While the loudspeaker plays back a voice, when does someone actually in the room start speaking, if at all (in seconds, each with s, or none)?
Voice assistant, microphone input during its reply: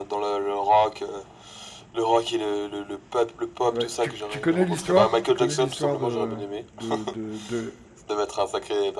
3.7 s